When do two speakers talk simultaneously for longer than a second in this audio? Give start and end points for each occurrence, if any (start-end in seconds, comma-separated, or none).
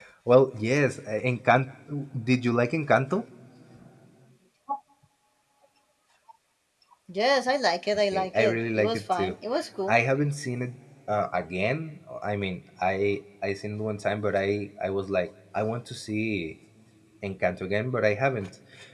8.1-9.3